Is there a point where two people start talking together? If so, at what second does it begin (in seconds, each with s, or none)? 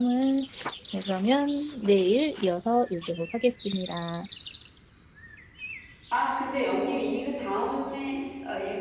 none